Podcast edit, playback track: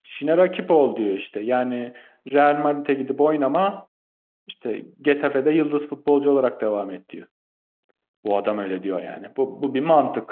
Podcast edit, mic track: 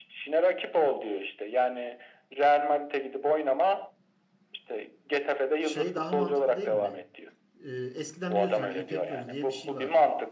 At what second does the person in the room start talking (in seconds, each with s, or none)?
5.6 s